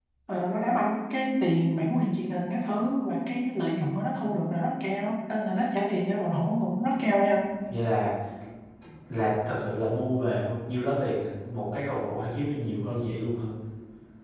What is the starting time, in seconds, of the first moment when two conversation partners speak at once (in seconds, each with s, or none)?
none